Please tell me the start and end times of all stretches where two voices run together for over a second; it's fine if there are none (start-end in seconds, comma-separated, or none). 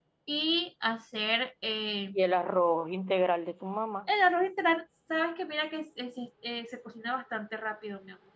none